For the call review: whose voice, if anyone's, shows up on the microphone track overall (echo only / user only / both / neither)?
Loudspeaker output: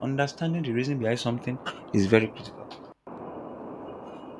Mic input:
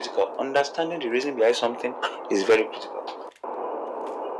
echo only